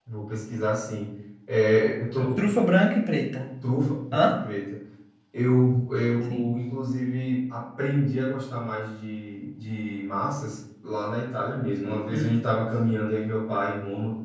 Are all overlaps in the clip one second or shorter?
Yes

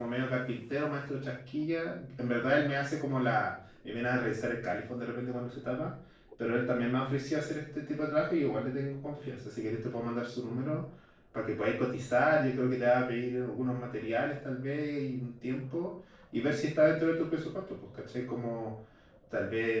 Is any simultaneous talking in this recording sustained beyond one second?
No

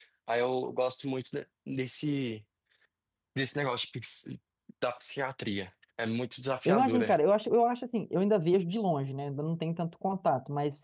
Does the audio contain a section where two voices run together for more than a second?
No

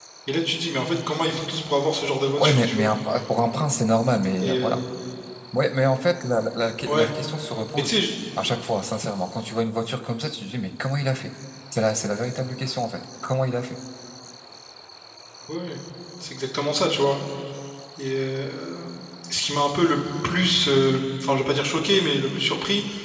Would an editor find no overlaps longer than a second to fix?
Yes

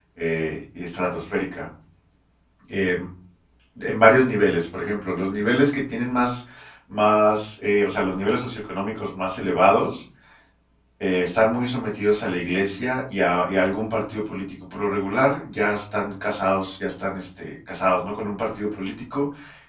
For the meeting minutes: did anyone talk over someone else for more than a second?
No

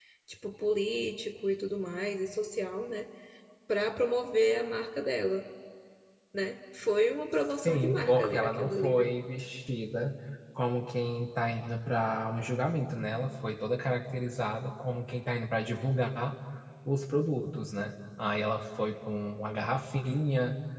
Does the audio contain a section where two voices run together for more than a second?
Yes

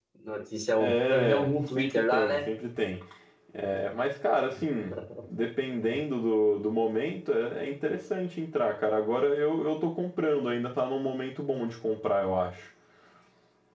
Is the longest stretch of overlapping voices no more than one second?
No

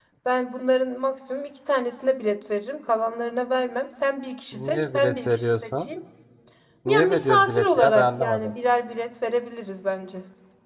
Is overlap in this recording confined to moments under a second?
No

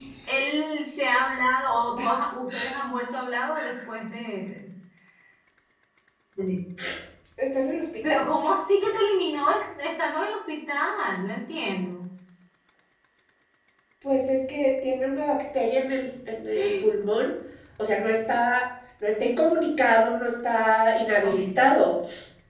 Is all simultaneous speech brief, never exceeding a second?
Yes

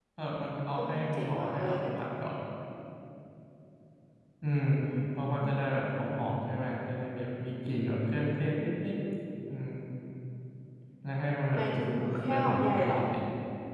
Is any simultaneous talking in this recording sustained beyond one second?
Yes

